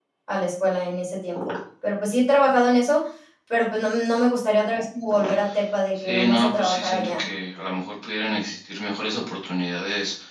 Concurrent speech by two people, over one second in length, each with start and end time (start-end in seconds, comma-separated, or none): 6.0-7.2